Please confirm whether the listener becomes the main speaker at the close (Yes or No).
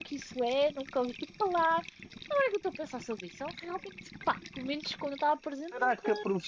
Yes